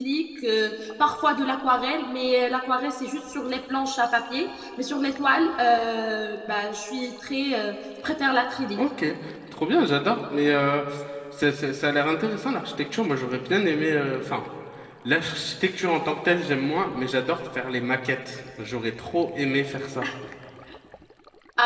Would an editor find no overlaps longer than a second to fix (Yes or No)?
Yes